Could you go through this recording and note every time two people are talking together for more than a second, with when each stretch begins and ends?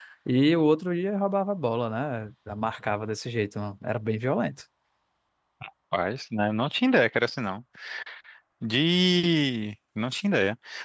none

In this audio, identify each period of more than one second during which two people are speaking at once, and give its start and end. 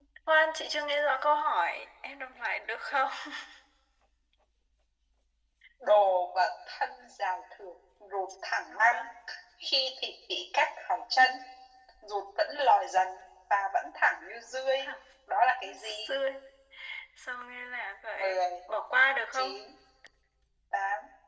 none

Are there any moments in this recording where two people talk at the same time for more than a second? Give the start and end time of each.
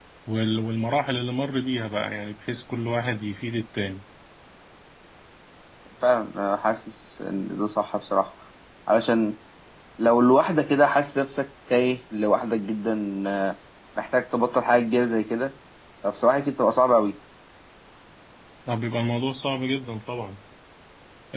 none

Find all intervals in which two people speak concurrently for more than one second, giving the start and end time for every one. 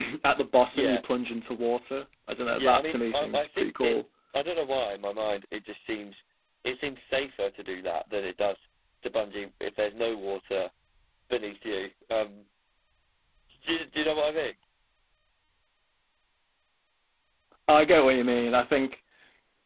2.6-4.0

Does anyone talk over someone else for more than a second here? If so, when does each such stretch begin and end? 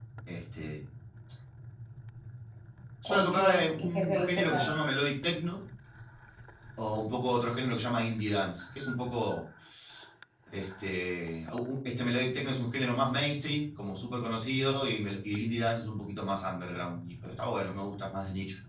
3.0-4.7

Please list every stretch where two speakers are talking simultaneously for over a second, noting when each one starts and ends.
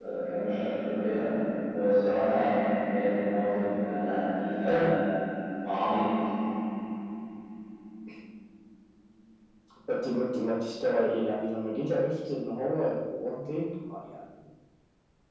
none

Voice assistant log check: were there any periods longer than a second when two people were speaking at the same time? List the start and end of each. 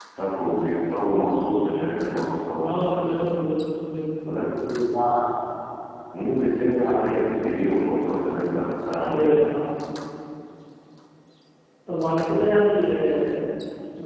none

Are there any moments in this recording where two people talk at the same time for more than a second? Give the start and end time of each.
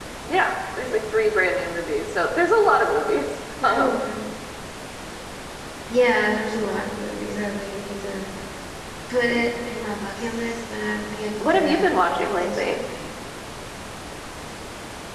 11.4-12.8

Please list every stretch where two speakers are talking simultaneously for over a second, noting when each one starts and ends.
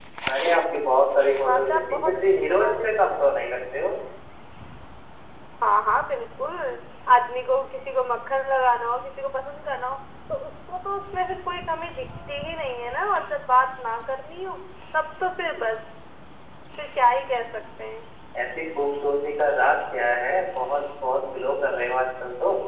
1.4-3.2

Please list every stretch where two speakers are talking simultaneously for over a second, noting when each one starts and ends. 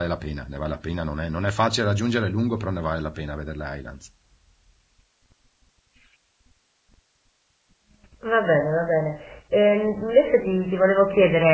none

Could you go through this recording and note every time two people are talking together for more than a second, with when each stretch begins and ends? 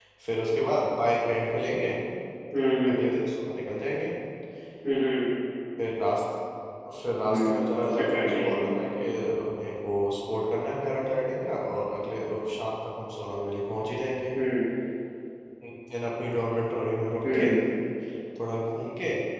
7.2-8.8

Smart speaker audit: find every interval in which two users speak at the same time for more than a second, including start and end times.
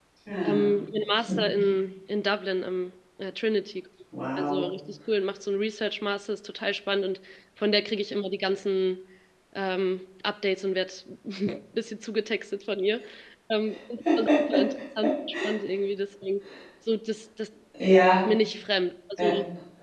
none

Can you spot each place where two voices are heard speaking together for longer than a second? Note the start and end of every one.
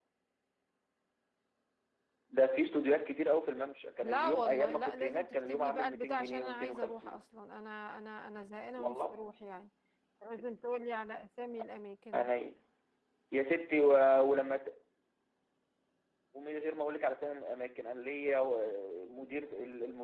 4.0-7.2

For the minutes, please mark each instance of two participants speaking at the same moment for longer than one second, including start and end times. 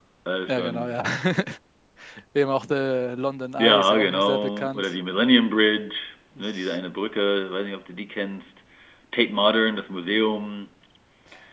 3.6-4.8

